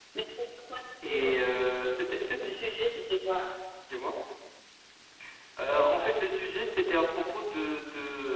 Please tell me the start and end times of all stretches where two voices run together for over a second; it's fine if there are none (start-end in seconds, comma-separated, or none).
none